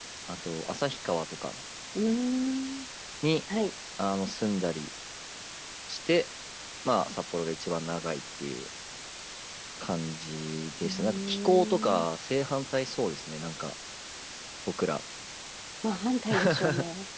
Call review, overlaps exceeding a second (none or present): present